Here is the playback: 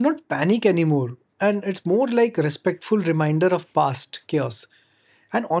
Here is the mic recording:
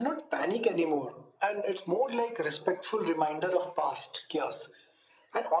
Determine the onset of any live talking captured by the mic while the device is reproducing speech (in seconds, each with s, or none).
none